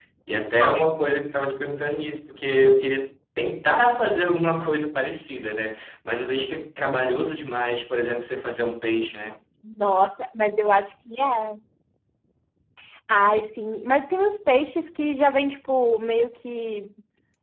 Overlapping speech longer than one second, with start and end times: none

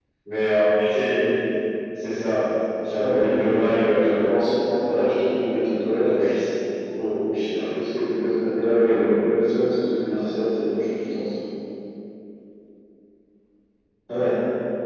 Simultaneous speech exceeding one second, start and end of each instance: 3.0-4.3

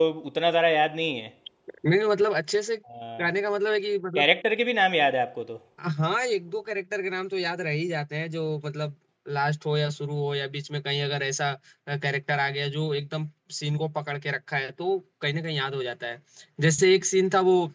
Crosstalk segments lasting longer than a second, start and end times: none

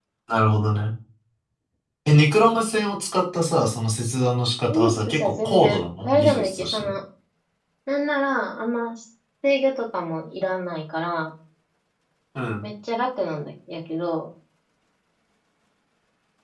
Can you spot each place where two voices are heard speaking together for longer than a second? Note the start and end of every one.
4.7-6.9

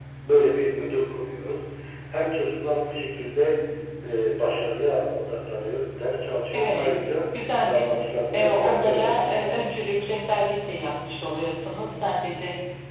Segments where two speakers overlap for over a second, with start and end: 8.3-9.7

